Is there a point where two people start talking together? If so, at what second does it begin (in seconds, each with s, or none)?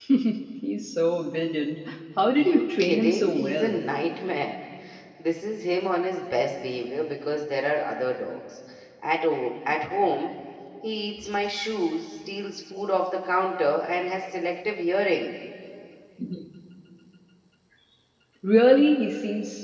2.4 s